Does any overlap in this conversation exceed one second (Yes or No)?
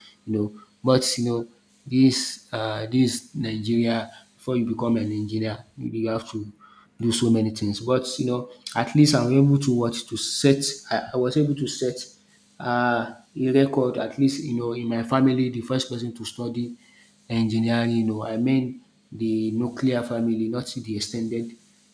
No